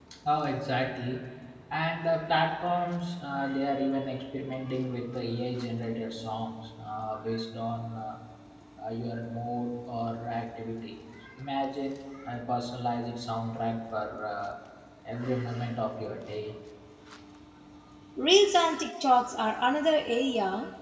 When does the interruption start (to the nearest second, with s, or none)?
none